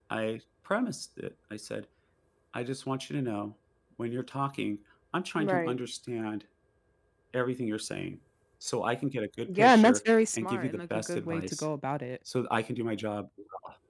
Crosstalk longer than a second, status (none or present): present